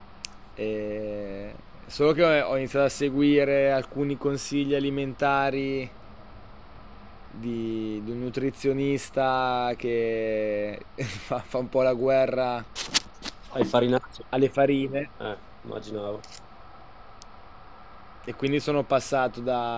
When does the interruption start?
none

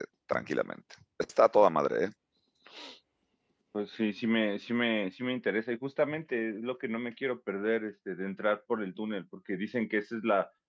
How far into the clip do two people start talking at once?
none

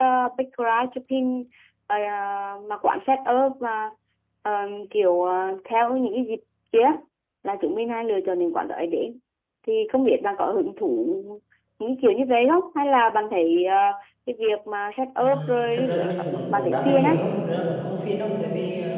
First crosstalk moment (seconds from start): 15.2 s

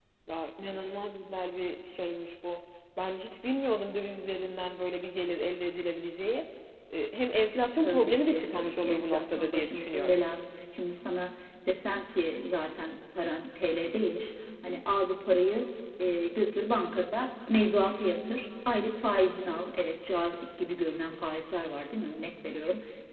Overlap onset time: 7.8 s

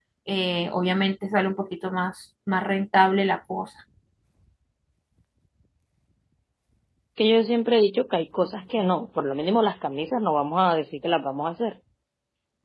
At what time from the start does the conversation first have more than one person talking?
none

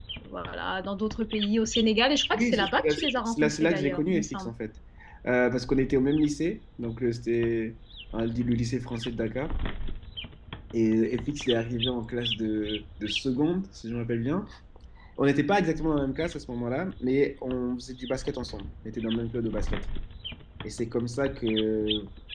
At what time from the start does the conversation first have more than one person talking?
2.3 s

